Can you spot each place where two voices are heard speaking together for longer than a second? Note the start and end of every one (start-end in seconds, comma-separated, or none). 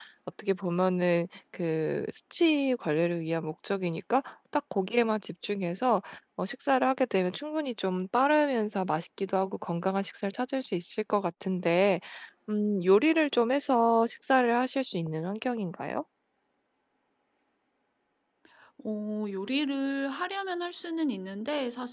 none